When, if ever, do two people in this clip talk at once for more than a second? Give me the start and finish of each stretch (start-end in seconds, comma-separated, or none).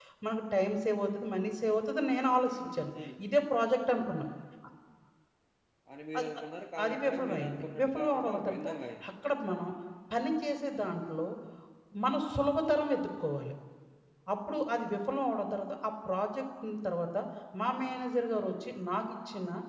6.8-8.7